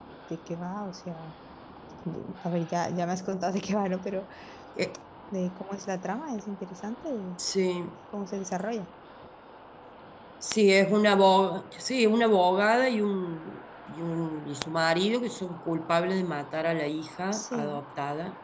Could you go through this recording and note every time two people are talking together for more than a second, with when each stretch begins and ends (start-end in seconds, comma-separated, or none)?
none